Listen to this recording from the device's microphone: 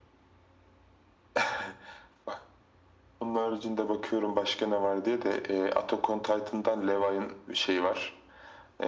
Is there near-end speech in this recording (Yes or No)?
No